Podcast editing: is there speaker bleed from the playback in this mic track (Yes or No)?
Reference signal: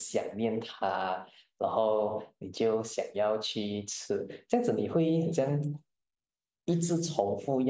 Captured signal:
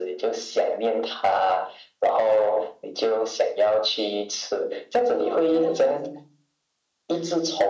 Yes